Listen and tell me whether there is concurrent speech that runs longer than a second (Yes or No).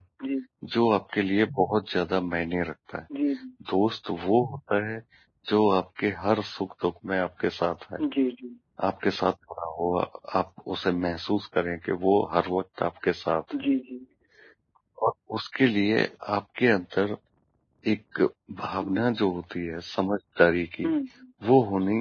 No